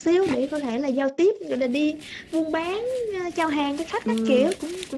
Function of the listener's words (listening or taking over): taking over